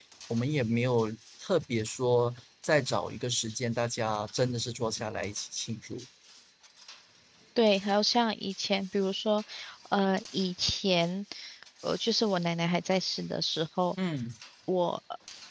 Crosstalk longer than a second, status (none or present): none